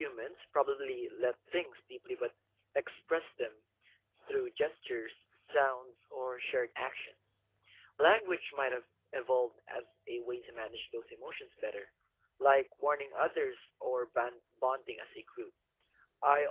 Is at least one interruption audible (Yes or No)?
No